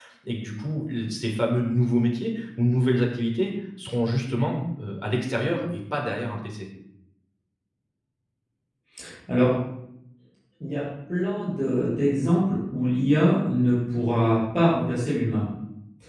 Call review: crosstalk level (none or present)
none